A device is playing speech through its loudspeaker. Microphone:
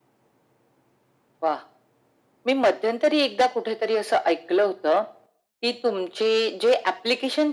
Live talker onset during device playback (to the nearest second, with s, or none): none